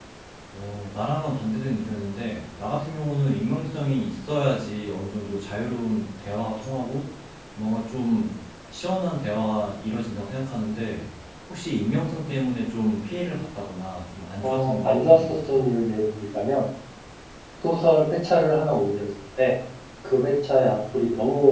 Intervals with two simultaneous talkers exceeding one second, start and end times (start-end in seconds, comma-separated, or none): 14.4-15.7